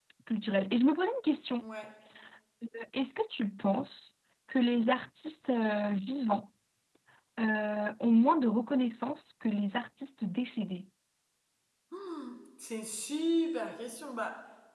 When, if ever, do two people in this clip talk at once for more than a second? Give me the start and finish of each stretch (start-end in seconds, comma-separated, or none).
none